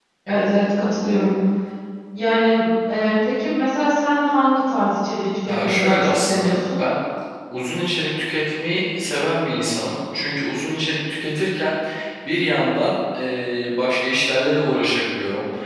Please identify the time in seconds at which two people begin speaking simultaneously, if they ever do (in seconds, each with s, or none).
5.5 s